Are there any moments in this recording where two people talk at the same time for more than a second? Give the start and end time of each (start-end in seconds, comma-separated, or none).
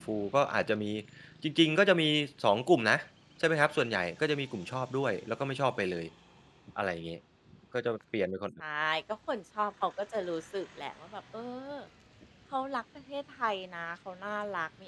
none